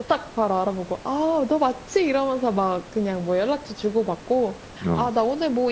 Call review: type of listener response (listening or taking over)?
listening